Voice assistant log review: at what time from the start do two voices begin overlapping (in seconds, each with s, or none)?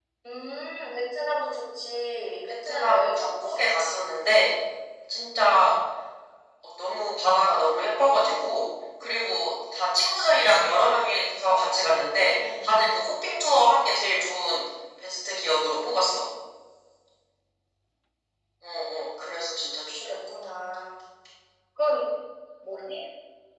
2.7 s